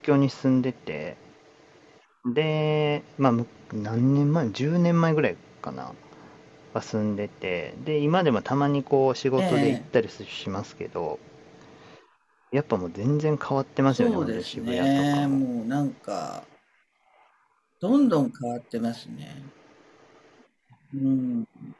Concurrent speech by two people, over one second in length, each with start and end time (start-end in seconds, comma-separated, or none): 13.9-15.4